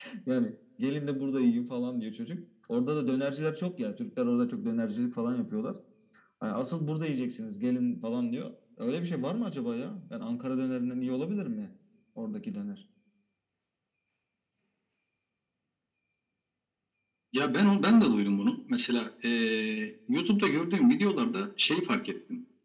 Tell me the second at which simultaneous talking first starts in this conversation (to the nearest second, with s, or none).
none